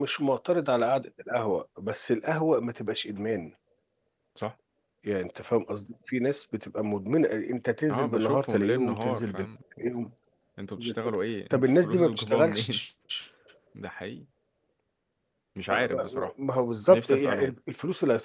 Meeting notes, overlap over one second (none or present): present